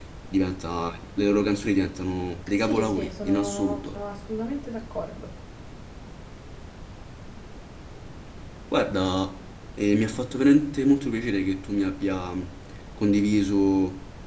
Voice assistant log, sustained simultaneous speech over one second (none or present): present